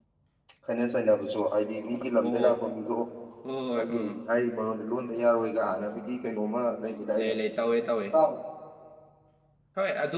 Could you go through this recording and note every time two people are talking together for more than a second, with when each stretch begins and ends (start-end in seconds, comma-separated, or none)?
none